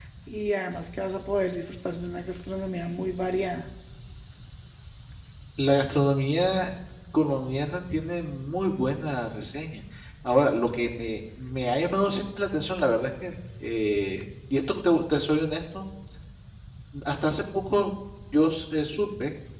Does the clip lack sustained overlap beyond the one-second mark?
Yes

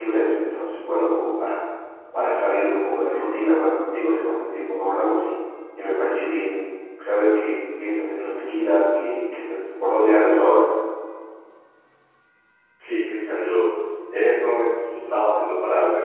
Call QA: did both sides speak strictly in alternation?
Yes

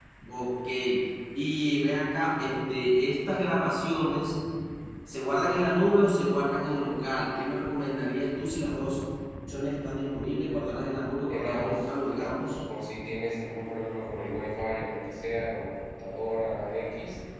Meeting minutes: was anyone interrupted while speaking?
Yes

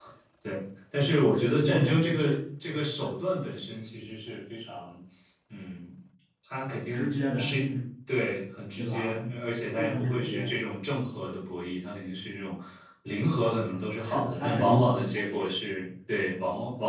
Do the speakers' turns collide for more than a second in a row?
Yes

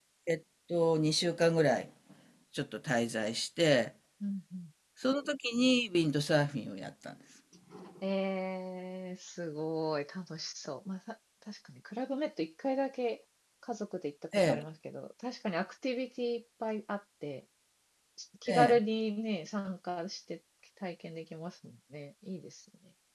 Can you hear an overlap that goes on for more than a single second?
No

